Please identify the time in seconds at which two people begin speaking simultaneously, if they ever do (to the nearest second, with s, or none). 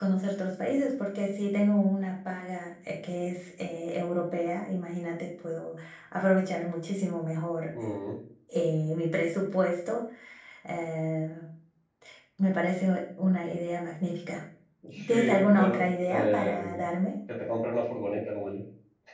15 s